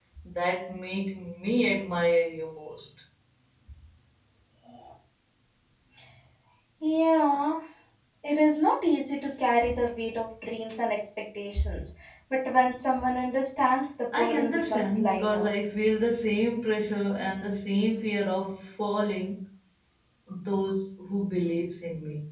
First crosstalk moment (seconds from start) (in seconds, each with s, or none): 14.1 s